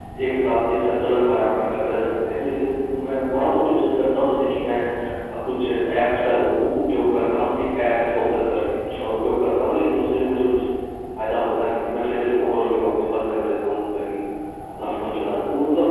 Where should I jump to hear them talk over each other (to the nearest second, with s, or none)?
none